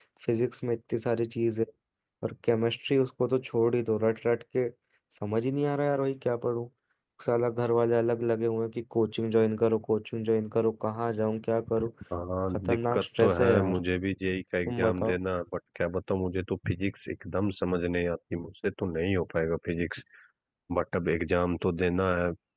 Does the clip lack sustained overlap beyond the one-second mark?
No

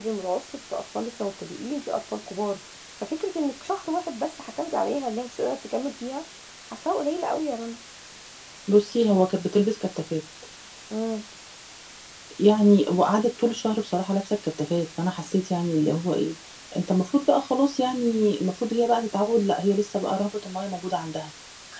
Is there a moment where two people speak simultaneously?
No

